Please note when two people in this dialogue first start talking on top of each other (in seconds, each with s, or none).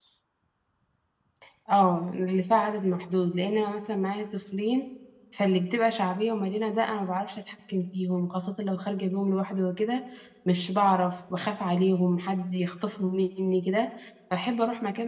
none